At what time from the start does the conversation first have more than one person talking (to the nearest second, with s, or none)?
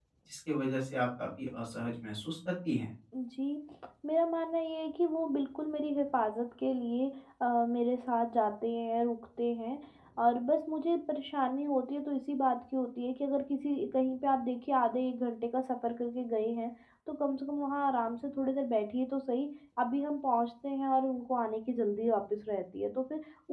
none